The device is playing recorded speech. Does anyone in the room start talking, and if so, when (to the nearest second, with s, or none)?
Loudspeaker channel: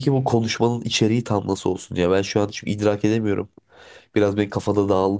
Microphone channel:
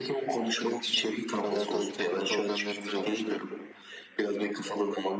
1 s